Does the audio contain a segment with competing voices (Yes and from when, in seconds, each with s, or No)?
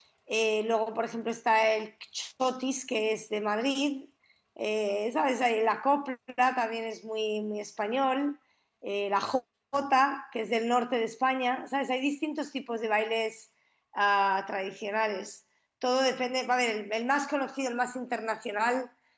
No